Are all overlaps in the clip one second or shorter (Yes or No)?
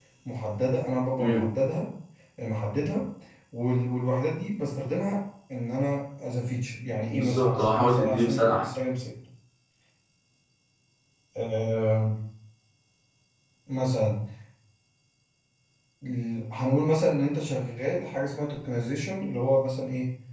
No